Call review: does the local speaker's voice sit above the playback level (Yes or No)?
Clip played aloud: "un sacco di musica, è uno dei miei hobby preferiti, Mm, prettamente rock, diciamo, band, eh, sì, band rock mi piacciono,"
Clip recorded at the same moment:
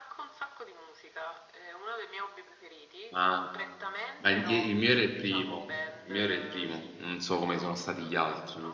Yes